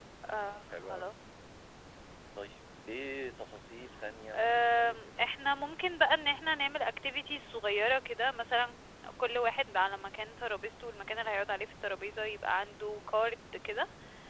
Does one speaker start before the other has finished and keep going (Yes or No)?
Yes